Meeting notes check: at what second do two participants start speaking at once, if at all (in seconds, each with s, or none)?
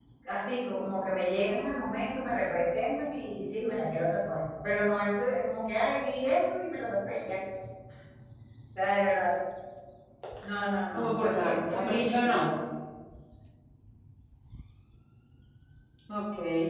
10.9 s